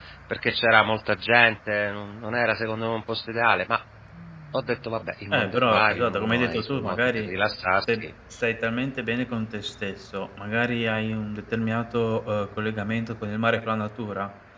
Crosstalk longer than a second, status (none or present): present